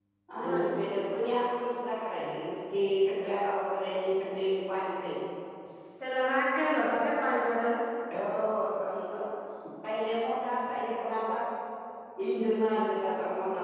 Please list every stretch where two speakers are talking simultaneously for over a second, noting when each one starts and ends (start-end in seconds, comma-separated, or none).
none